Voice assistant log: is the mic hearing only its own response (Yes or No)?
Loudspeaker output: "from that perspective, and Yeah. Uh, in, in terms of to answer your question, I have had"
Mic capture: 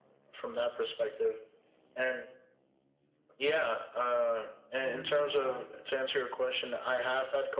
No